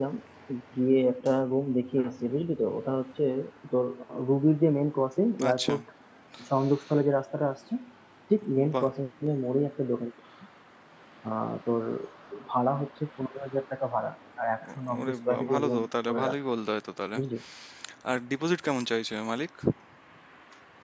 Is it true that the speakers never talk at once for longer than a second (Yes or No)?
No